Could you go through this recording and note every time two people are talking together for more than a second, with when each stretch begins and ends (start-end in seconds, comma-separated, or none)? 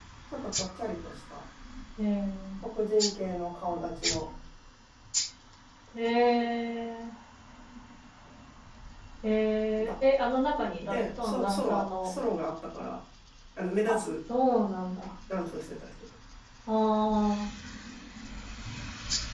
10.9-12.1